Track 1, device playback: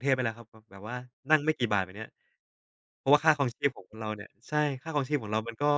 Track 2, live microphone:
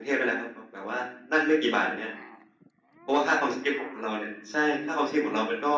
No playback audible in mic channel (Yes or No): No